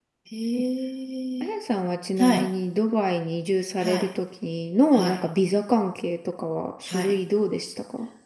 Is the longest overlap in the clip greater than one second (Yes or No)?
No